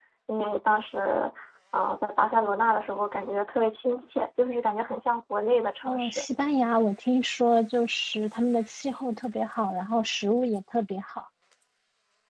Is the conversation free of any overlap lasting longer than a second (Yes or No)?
Yes